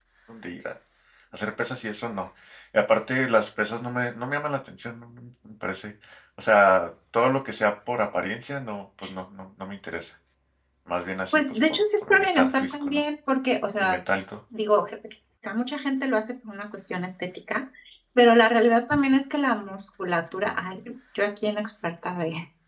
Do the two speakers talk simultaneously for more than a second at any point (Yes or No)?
Yes